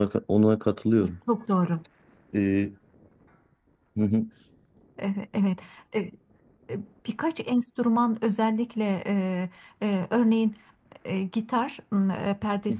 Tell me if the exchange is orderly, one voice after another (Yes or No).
Yes